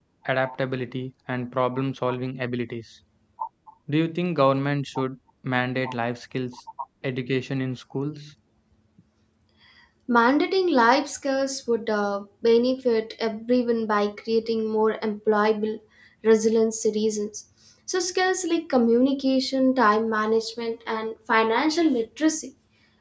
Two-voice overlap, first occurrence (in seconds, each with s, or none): none